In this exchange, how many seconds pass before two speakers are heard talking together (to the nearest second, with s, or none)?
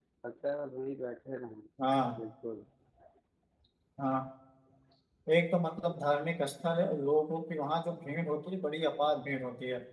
none